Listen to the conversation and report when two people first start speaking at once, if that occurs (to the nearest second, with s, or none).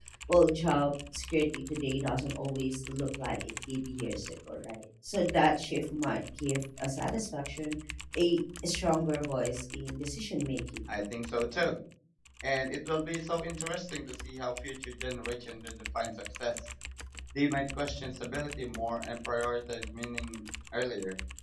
none